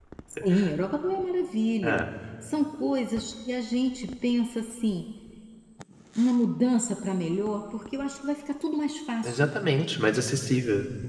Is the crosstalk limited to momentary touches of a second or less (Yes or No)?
Yes